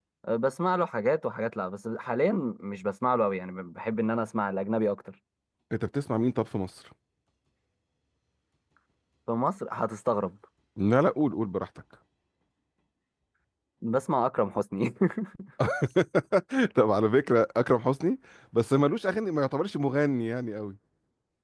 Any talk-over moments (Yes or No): No